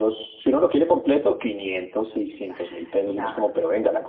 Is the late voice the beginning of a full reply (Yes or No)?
No